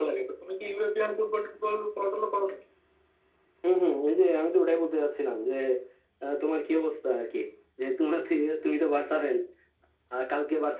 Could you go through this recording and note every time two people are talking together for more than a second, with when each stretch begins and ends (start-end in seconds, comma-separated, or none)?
none